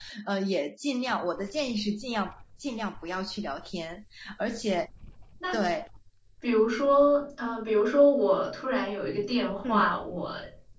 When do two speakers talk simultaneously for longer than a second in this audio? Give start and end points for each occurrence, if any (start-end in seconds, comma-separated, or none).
none